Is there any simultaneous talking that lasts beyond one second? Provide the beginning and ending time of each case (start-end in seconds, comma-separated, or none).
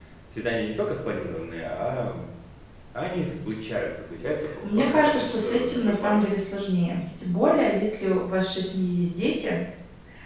4.6-6.2